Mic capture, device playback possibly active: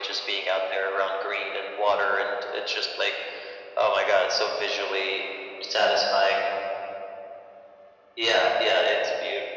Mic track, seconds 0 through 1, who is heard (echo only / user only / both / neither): echo only